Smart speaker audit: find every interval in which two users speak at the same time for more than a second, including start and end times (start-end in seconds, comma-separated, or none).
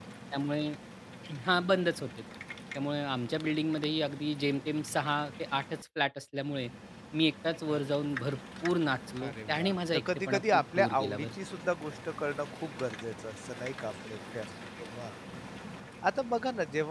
9.2-11.3